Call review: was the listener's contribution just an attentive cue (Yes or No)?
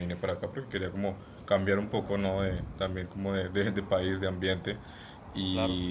Yes